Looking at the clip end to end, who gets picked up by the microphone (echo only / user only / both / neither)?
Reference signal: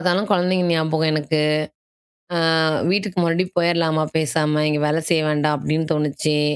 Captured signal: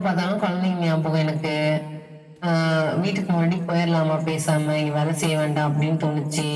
echo only